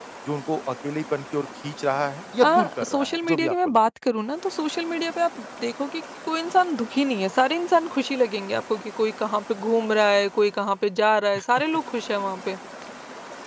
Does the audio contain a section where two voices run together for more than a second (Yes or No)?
Yes